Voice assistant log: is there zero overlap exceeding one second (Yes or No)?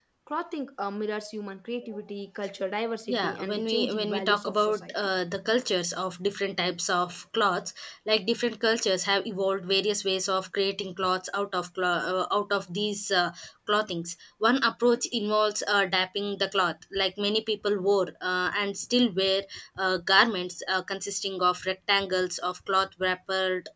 No